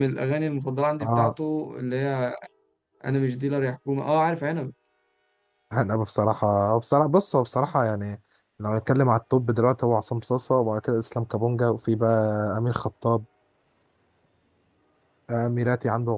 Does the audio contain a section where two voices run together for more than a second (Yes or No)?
No